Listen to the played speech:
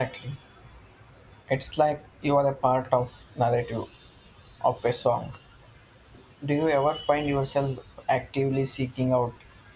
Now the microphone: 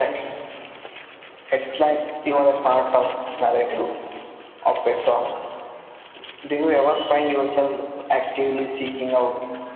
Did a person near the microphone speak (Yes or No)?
No